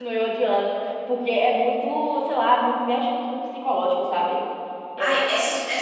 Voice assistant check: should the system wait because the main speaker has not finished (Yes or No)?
No